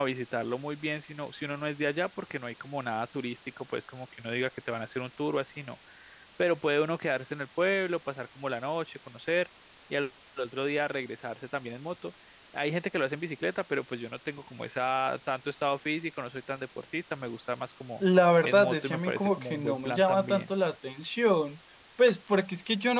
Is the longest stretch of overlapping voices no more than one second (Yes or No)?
No